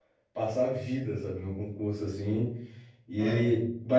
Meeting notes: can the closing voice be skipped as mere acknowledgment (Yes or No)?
Yes